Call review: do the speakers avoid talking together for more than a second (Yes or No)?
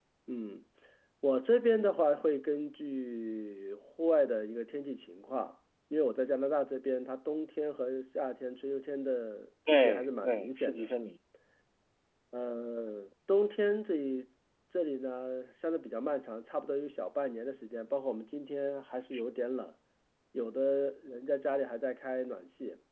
No